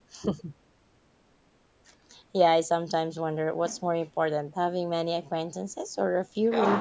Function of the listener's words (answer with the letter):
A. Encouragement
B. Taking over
B